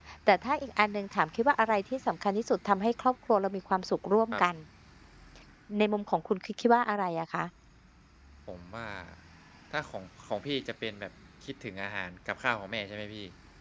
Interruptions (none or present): none